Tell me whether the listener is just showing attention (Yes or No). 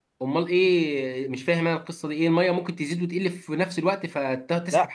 No